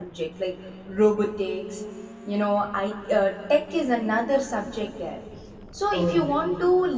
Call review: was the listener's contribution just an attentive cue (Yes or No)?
Yes